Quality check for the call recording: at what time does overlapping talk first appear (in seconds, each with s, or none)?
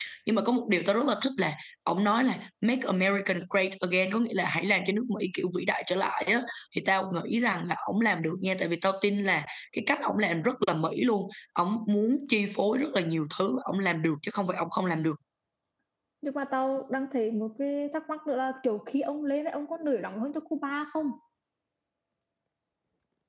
none